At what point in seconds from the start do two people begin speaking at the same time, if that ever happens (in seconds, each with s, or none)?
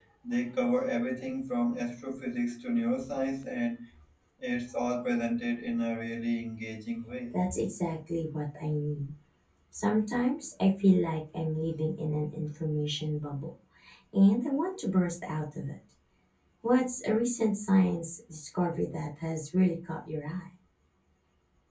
none